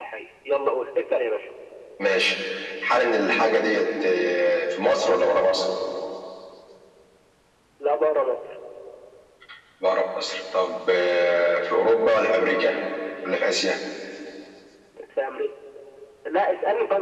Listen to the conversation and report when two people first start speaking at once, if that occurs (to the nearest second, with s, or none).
none